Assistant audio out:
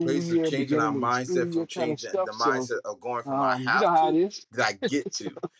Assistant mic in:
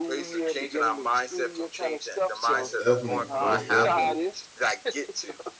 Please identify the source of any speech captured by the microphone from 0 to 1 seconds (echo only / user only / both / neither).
echo only